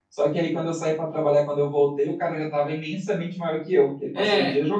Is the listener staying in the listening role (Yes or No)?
No